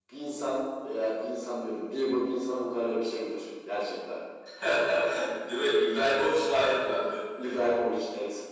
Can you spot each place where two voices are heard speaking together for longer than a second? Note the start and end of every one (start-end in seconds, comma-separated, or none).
none